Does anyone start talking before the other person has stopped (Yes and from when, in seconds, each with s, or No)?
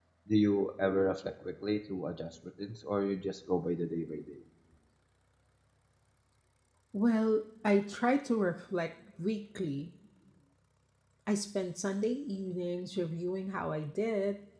No